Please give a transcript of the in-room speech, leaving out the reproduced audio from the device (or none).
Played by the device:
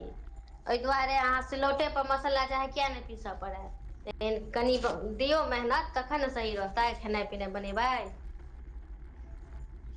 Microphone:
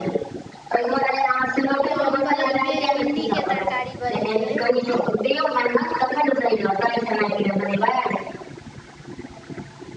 हम बनेलियै भिंडी के तरकारी बनेलियै